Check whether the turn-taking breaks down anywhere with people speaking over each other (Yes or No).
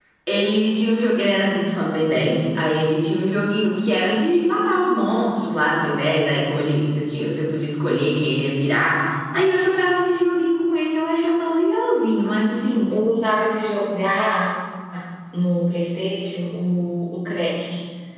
No